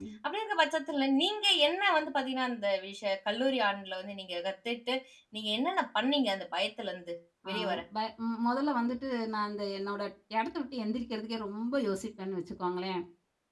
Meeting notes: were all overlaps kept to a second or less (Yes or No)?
Yes